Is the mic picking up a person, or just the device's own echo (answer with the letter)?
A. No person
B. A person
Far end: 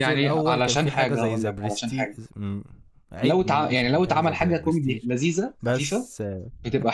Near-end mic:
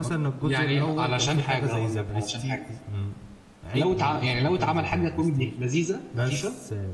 A